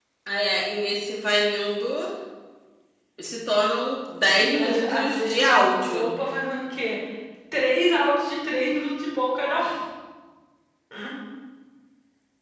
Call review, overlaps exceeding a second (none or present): present